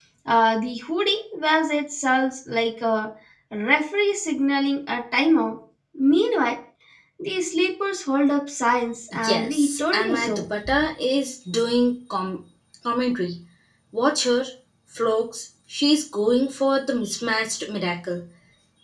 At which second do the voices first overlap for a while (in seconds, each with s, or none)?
9.1 s